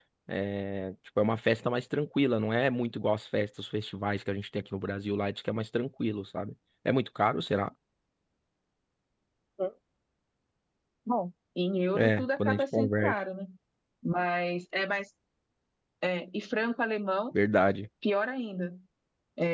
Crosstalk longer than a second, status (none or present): present